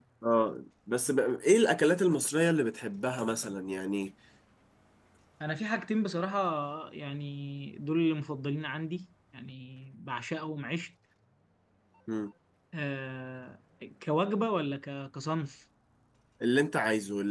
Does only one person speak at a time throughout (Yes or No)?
Yes